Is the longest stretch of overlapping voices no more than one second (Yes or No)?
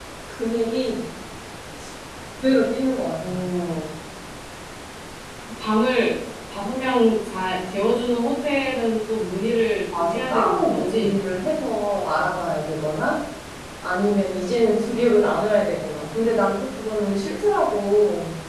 No